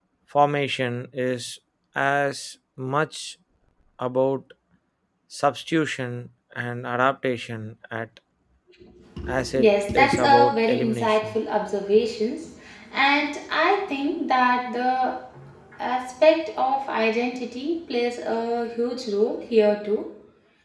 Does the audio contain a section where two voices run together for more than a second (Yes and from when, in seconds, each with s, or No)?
Yes, from 9.6 s